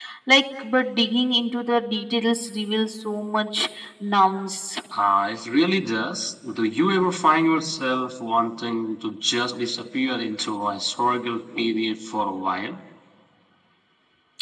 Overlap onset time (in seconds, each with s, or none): none